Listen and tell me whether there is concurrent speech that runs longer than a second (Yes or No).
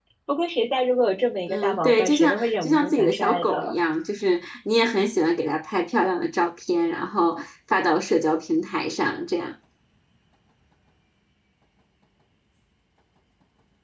Yes